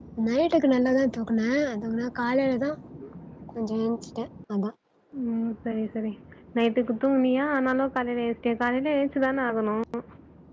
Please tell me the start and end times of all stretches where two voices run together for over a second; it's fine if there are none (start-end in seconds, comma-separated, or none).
none